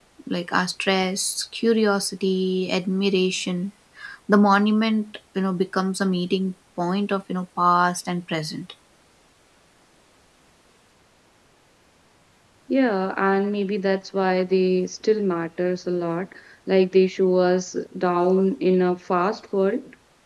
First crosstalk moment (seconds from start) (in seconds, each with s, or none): none